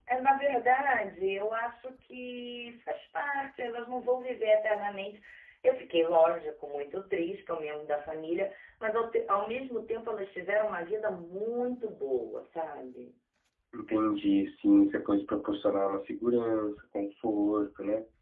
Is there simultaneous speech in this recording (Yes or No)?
No